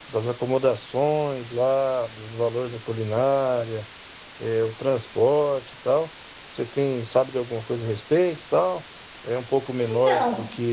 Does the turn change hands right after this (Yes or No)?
No